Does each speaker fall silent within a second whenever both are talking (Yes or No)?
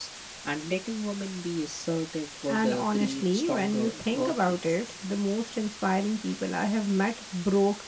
No